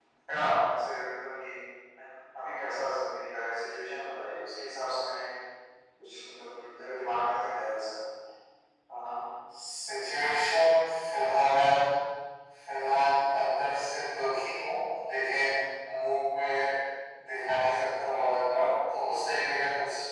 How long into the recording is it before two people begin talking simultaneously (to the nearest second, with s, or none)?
none